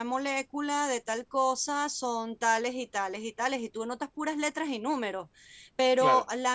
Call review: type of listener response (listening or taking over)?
listening